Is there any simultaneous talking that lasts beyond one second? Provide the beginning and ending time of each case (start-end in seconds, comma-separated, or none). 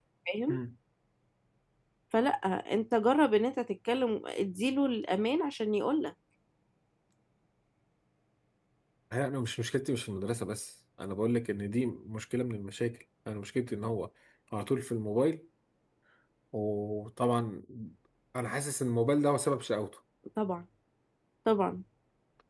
none